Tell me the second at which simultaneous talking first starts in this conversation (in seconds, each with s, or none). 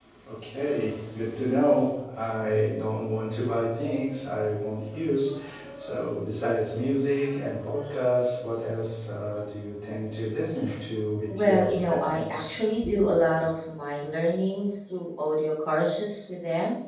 11.3 s